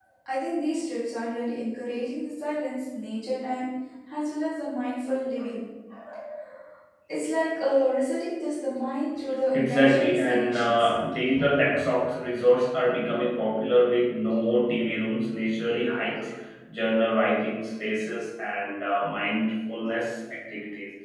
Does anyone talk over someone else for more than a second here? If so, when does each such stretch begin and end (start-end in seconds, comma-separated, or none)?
9.5-10.9